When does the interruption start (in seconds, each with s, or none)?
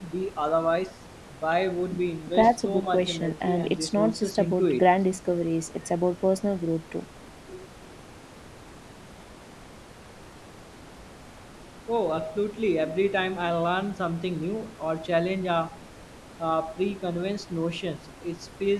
2.3 s